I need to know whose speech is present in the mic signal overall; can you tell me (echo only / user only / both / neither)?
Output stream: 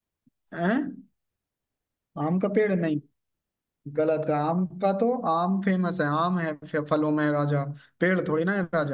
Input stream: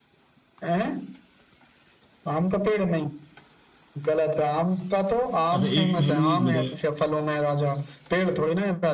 both